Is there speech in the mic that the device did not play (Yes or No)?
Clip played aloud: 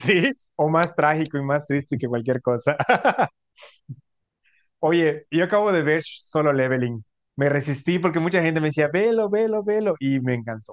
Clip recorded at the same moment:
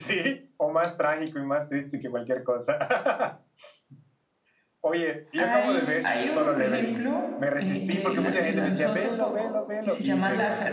Yes